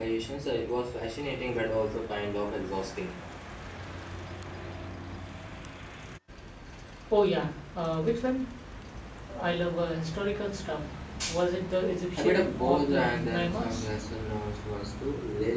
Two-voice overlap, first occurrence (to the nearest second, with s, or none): 12 s